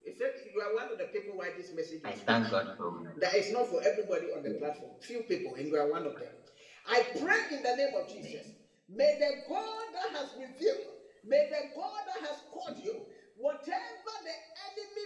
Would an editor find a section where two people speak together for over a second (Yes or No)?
No